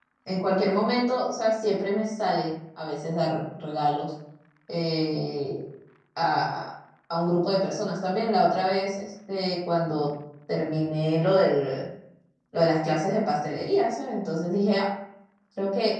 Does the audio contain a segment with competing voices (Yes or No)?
No